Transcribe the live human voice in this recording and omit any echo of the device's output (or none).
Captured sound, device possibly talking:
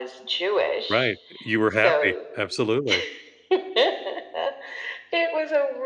Right, you were happy, absolutely.